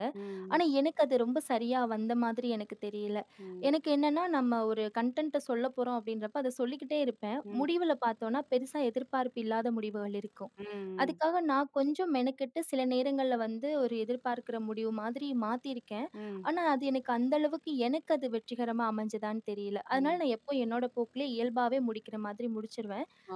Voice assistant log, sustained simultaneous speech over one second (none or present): none